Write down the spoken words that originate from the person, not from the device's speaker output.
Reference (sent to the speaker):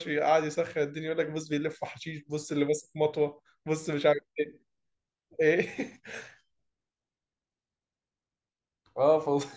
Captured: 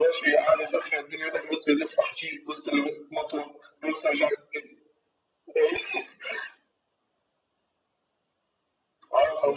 none

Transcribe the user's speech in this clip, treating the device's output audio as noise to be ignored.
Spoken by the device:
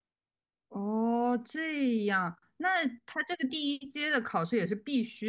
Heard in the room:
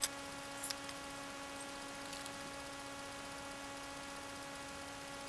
none

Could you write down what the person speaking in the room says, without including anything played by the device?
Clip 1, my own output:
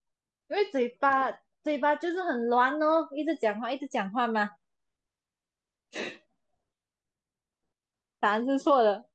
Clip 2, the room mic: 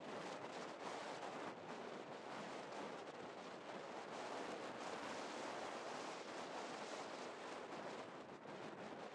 none

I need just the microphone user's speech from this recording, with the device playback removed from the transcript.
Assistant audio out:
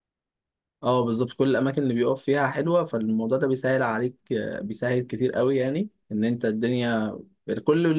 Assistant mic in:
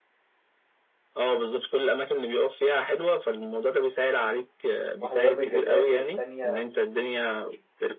واحده ضربه جزاء والتانيه

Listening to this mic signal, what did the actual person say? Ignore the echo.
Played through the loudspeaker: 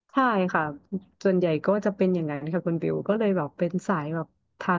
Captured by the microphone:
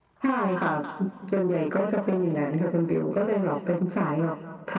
none

